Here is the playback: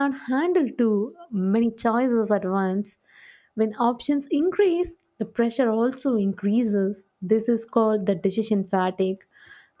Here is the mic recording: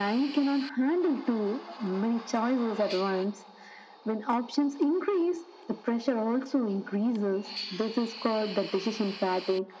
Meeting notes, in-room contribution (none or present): none